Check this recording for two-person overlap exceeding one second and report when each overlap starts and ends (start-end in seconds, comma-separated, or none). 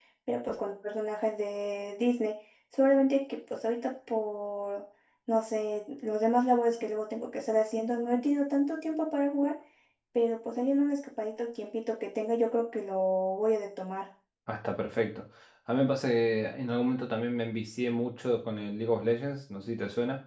none